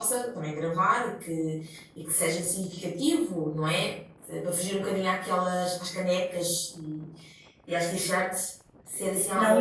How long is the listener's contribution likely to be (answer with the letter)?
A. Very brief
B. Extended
B